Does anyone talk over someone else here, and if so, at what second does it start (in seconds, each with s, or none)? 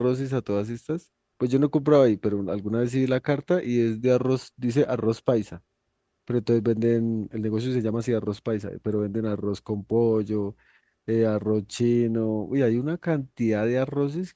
none